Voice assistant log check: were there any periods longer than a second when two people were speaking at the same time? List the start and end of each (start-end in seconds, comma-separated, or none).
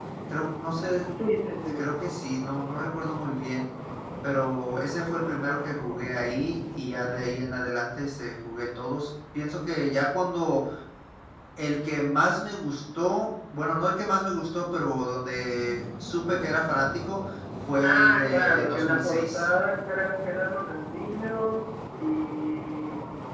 17.8-19.5